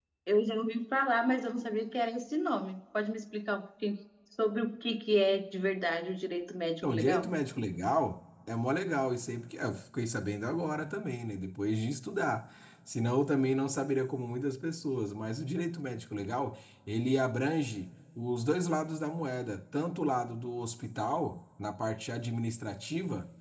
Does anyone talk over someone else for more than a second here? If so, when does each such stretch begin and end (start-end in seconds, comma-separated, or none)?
none